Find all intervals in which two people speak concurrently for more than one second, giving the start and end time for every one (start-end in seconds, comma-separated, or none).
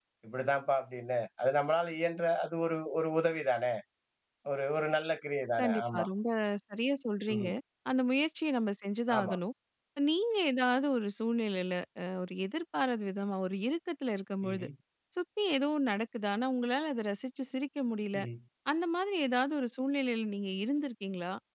none